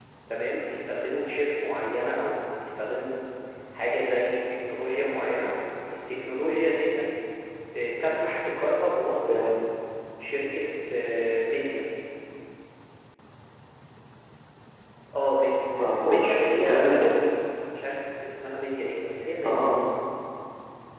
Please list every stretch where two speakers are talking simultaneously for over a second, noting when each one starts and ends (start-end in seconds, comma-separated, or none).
15.8-17.0